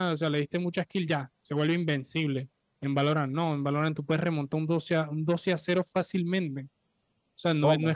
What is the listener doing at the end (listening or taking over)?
listening